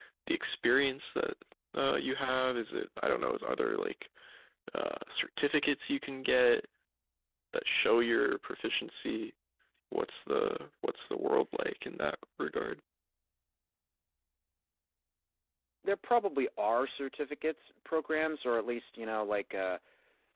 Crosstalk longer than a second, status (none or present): none